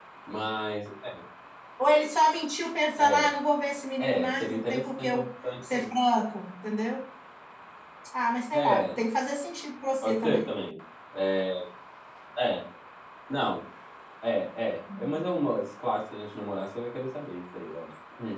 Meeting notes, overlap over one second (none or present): present